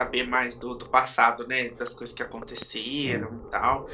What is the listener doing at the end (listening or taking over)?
listening